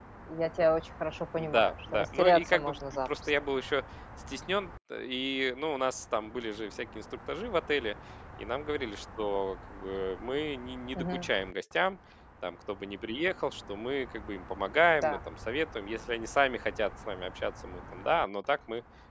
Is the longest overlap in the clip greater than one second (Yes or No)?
Yes